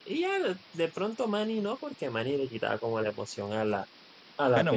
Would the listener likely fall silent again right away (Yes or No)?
No